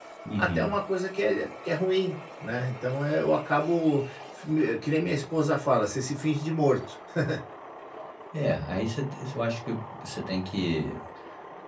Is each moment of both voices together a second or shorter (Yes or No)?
Yes